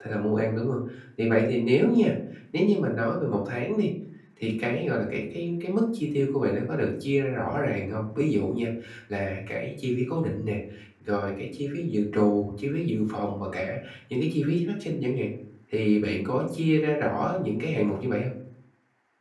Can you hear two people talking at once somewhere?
No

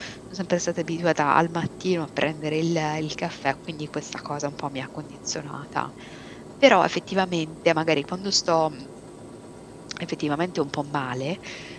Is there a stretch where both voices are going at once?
No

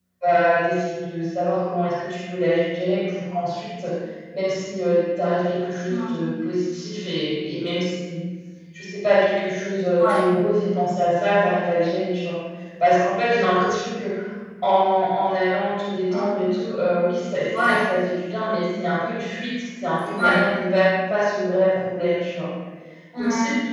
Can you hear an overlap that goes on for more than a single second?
No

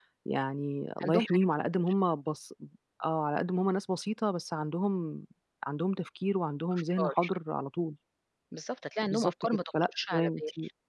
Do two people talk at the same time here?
Yes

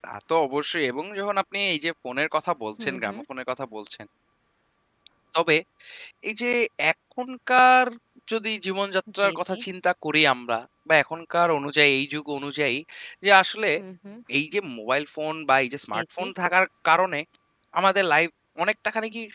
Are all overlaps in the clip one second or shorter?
Yes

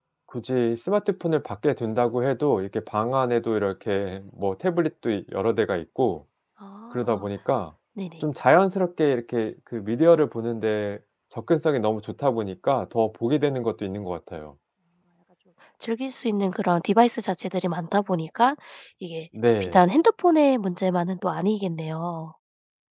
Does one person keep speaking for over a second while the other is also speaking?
No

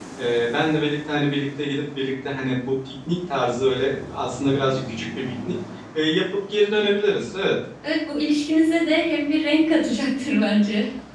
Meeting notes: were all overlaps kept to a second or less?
Yes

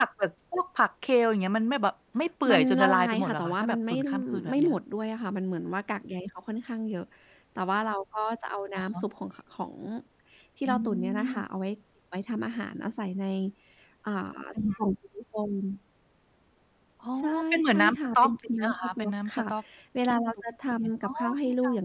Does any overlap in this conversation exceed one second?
Yes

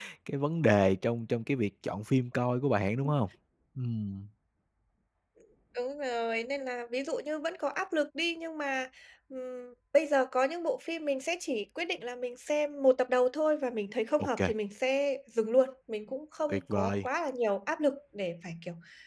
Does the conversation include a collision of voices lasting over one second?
No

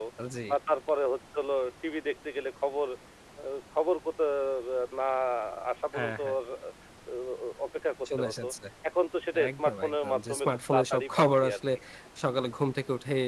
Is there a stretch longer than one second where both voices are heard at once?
Yes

